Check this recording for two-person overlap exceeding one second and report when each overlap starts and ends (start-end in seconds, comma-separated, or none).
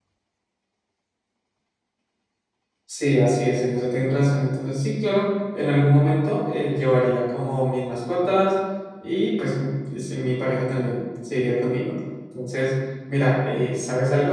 none